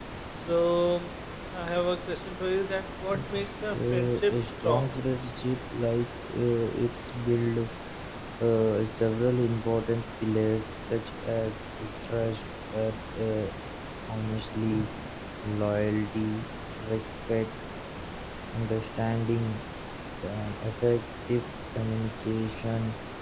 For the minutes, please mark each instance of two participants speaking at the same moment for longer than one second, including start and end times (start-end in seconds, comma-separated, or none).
3.3-5.0